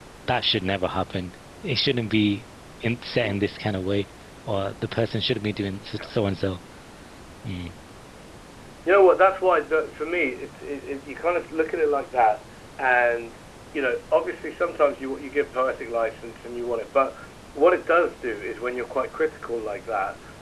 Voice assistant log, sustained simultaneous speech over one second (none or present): none